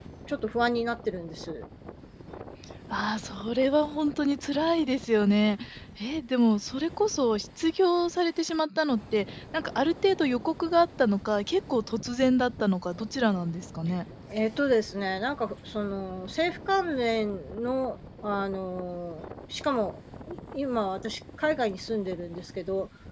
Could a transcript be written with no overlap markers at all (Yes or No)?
Yes